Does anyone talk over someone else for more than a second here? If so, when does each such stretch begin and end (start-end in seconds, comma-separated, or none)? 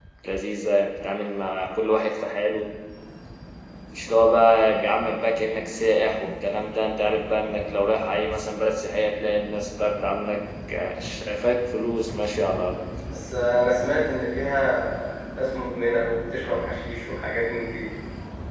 none